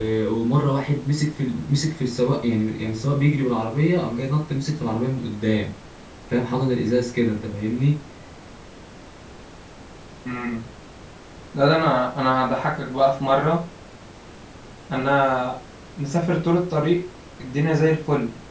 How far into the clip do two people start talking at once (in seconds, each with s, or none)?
none